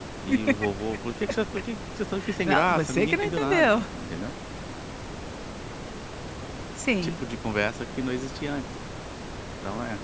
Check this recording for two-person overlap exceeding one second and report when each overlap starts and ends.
2.5-3.7

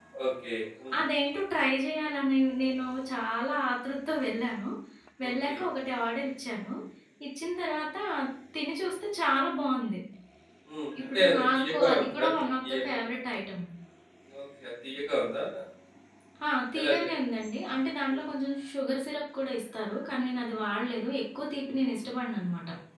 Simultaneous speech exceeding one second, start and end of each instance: 11.1-13.0

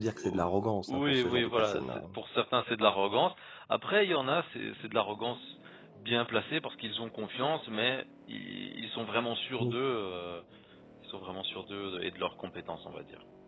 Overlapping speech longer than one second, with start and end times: 0.9-2.1

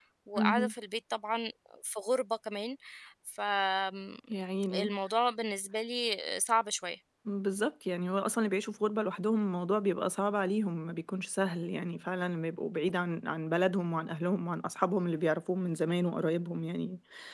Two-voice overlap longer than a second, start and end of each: none

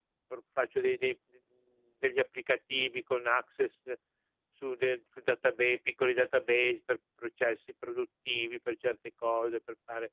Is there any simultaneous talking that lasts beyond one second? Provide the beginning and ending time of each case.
none

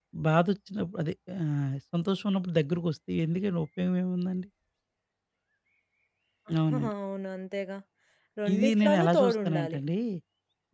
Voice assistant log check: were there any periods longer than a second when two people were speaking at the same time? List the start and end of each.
8.5-9.8

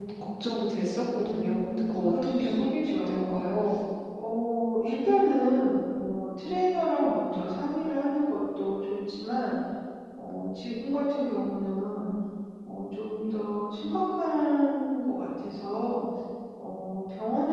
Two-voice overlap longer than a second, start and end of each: 1.2-3.5

